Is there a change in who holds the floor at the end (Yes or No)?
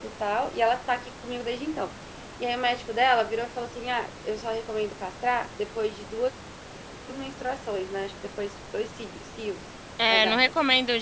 Yes